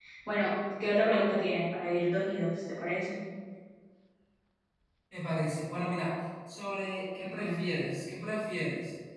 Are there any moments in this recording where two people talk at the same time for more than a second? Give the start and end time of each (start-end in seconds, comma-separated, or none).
none